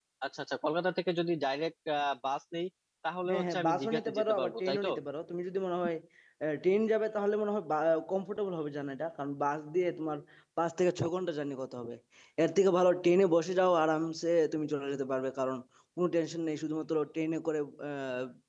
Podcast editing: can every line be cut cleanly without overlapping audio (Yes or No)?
No